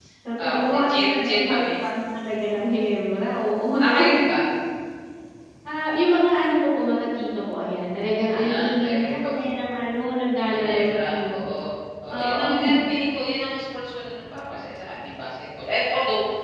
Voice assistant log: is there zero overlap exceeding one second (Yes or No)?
No